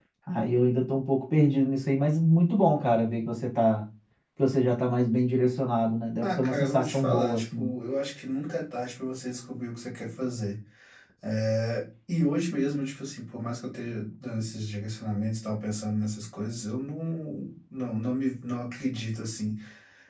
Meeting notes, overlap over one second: present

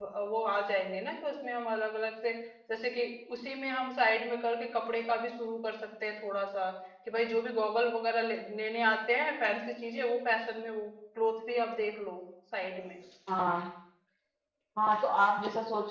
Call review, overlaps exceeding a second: none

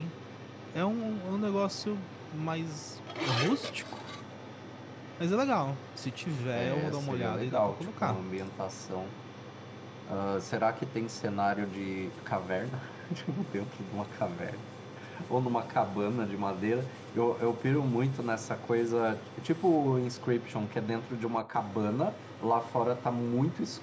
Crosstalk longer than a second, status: present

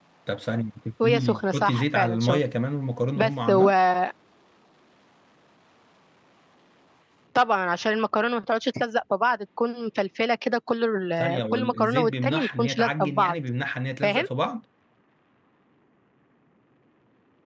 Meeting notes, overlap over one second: present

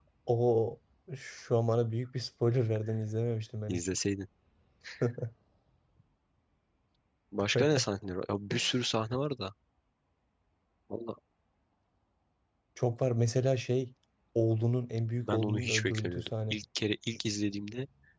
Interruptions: present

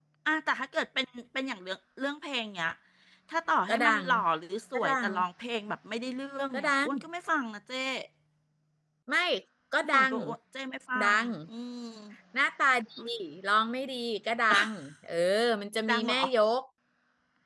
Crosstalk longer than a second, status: none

